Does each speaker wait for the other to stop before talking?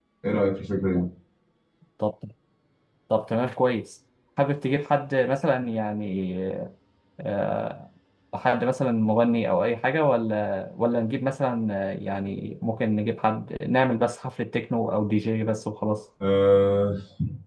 Yes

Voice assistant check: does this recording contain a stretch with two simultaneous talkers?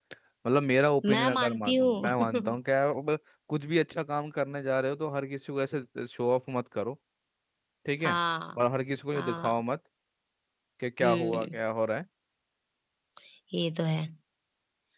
Yes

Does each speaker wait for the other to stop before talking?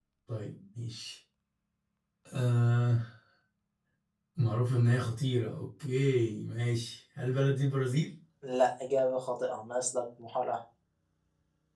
Yes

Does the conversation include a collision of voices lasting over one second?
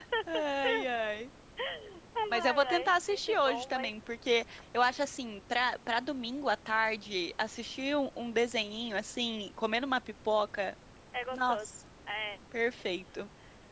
Yes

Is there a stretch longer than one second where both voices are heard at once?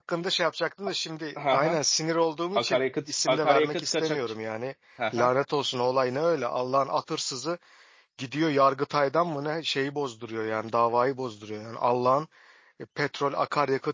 Yes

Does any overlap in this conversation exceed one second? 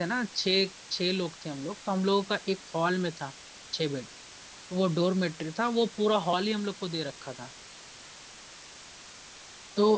No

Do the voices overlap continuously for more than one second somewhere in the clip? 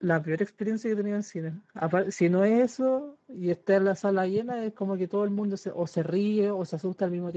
No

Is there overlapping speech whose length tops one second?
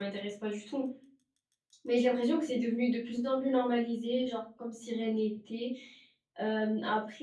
No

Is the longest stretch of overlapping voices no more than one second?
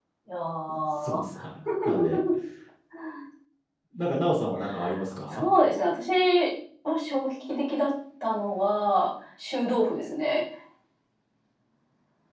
Yes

